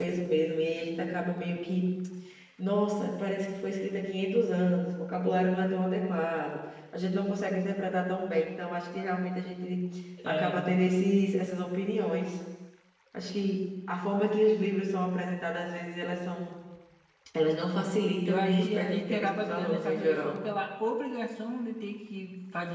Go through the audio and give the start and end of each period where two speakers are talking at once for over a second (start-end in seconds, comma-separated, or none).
18.2-20.4